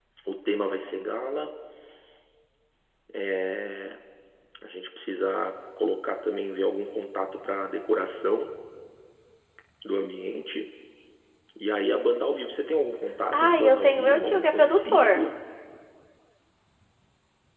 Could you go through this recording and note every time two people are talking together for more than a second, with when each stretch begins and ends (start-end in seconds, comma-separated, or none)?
13.3-15.2